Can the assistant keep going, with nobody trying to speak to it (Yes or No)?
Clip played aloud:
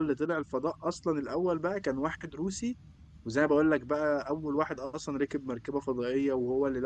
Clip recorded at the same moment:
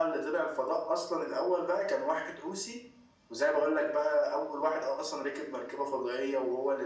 Yes